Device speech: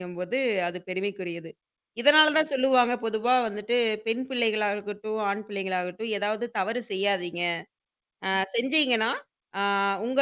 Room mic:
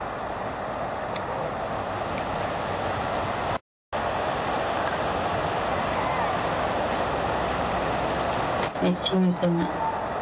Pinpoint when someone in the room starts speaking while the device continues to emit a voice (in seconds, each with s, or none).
8.9 s